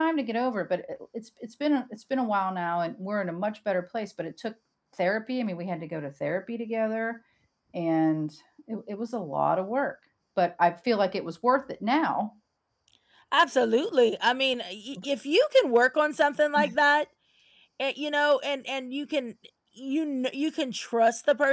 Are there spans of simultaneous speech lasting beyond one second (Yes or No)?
No